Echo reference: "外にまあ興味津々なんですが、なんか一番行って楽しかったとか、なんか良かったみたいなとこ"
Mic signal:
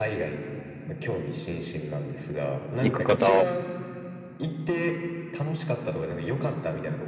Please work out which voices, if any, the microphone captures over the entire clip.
both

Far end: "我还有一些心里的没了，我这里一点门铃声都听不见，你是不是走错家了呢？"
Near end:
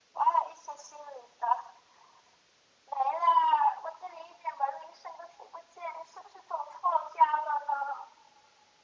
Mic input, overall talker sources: echo only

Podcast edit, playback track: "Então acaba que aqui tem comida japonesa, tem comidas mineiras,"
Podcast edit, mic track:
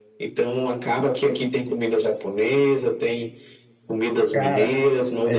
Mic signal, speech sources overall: both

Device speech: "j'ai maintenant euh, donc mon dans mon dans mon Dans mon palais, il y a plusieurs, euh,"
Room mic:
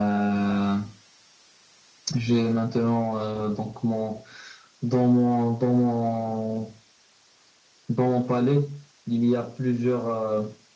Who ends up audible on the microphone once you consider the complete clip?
echo only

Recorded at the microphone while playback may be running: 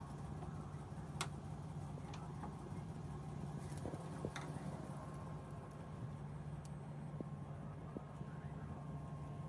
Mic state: neither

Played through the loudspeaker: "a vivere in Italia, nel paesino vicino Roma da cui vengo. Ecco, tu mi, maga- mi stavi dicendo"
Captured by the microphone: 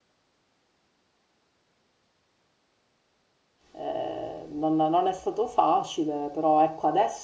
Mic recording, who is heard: user only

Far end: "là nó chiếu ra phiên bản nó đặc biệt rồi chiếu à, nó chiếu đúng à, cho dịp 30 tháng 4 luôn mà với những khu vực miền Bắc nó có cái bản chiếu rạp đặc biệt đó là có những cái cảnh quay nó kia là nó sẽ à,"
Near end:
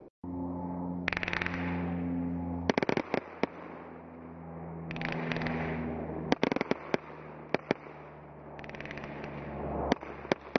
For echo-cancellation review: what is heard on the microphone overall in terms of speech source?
neither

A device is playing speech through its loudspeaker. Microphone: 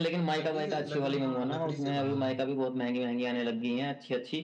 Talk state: both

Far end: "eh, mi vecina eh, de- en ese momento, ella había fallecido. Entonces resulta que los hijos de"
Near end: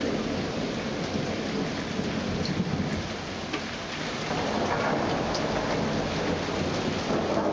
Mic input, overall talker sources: neither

